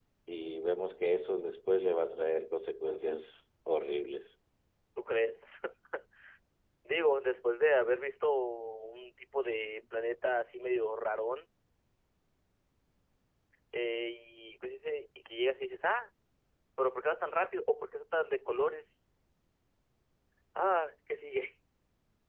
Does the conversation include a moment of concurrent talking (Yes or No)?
No